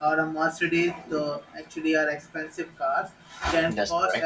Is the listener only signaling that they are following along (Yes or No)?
Yes